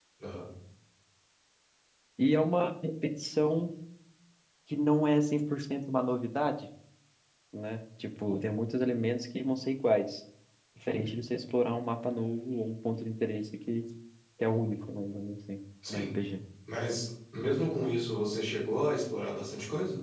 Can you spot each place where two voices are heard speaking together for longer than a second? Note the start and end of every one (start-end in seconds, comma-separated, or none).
none